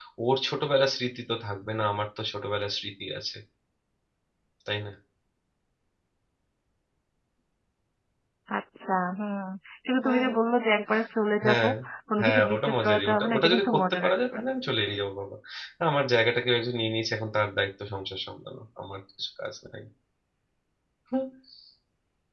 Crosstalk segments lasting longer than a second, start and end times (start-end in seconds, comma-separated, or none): 12.2-14.4